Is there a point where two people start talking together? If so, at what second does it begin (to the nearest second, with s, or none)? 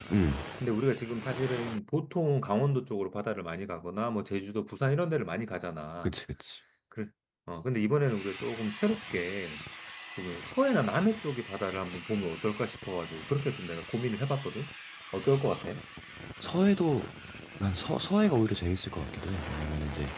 none